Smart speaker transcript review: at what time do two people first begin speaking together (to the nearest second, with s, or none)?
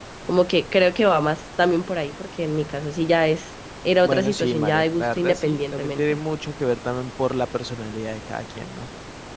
4 s